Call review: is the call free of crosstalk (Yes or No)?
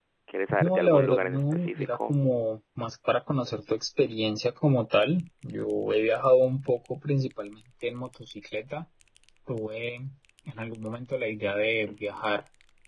No